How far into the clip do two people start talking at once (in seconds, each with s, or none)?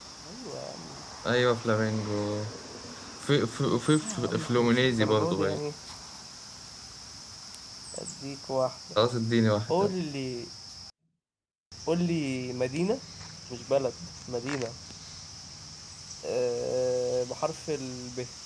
4.0 s